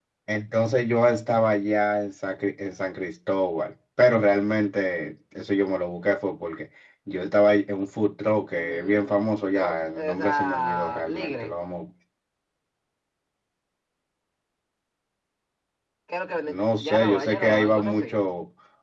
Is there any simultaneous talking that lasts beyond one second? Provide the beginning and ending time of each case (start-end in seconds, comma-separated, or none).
8.6-11.5, 16.5-18.2